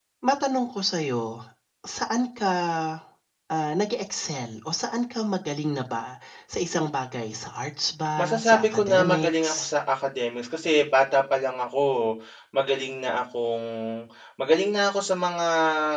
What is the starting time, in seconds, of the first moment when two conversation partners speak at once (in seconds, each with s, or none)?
8.2 s